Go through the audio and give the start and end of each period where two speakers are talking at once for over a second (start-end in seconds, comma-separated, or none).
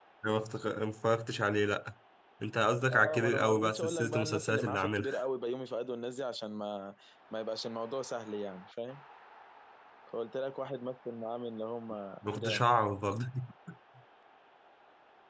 2.9-5.1